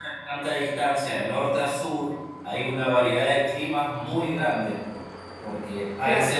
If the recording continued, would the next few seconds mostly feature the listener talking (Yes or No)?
No